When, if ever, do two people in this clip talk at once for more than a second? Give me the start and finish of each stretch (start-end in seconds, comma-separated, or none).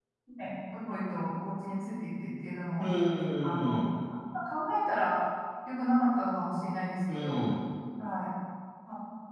none